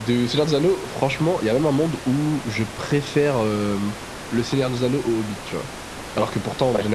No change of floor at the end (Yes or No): Yes